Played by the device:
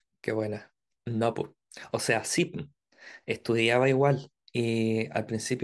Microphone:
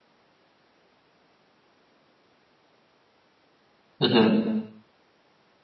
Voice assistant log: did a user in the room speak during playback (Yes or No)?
Yes